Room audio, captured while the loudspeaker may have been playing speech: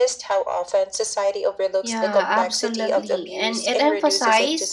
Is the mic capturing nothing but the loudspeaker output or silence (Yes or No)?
No